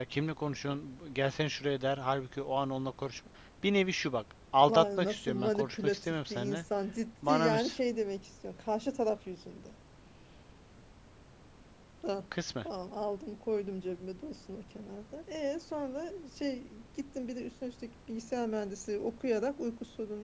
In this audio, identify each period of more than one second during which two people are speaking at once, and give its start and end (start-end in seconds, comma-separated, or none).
4.7-6.6